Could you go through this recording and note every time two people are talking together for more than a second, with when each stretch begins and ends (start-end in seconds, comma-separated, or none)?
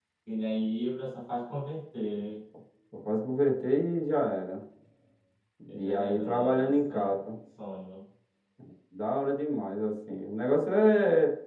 5.8-7.1